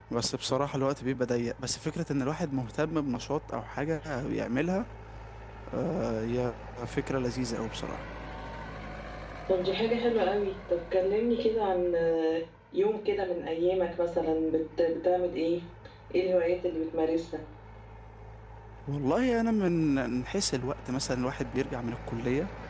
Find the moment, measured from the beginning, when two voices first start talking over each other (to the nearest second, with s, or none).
none